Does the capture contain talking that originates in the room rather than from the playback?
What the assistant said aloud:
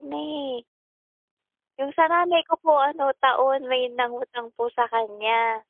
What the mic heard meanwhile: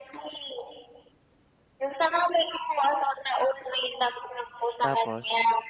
Yes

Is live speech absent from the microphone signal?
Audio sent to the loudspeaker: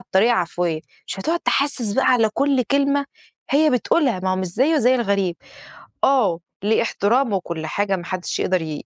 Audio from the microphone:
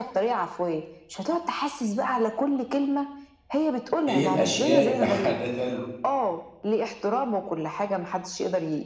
No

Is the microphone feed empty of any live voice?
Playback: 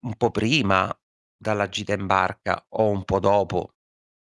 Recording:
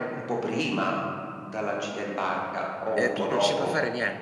No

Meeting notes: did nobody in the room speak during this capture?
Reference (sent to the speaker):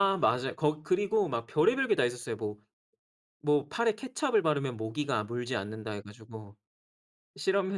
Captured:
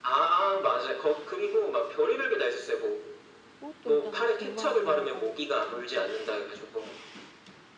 No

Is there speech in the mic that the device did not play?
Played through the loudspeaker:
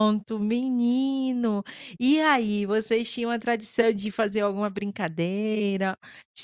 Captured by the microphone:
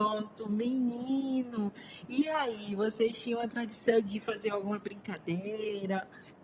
No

